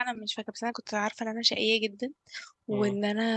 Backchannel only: Yes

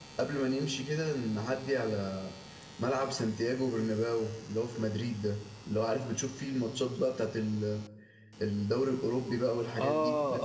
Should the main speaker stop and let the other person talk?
Yes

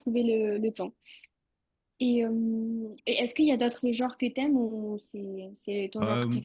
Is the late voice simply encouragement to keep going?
No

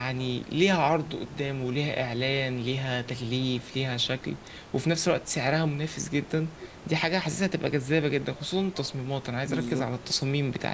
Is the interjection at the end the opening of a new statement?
No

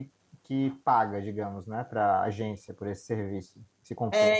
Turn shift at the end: Yes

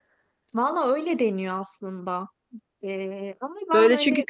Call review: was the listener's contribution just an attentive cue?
No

